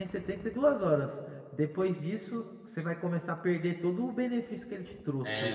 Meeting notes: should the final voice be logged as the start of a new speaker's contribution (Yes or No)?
Yes